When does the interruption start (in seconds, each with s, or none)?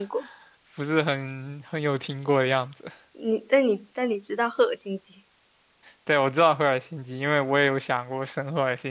none